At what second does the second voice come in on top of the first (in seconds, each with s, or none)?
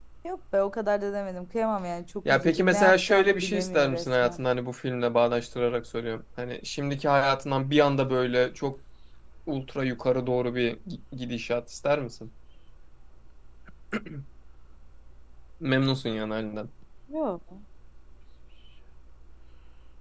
2.2 s